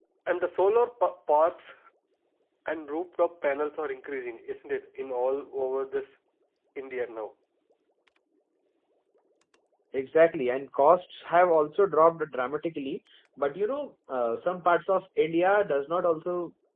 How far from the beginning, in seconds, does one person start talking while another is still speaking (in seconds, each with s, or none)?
none